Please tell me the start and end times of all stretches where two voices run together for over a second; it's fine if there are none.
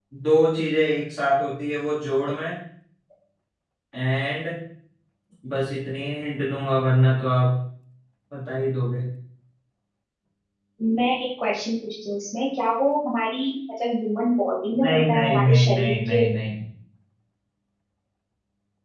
14.8-16.2

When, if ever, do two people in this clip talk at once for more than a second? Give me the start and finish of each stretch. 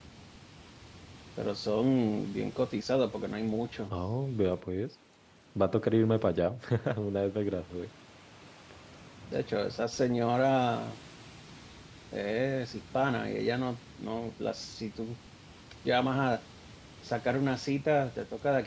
none

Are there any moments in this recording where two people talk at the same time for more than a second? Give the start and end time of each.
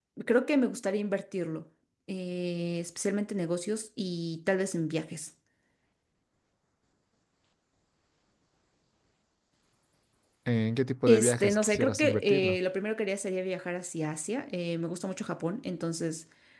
11.1-12.6

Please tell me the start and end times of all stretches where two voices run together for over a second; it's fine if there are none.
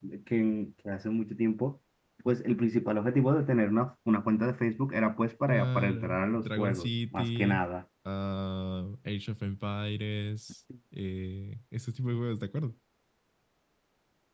5.5-7.7

